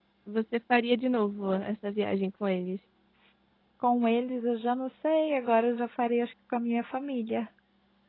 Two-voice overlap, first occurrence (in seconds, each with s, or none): none